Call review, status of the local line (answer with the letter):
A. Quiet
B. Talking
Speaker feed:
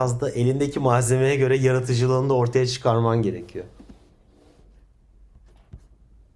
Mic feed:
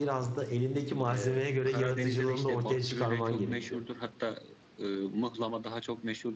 B